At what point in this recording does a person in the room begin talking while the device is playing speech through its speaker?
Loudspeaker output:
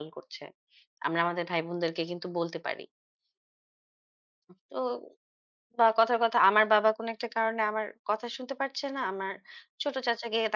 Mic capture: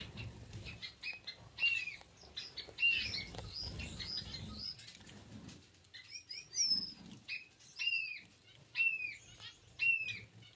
none

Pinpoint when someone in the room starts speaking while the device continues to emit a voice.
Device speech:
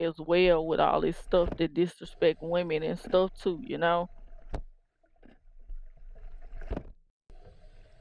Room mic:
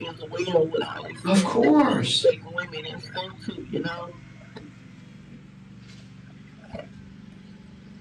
1 s

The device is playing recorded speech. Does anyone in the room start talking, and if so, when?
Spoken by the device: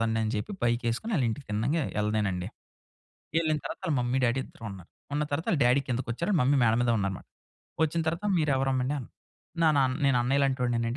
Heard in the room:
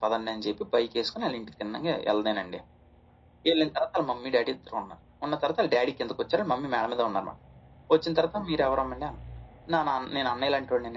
none

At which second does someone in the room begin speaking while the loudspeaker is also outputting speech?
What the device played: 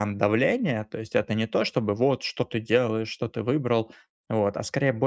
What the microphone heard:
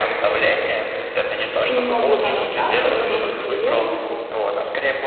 2 s

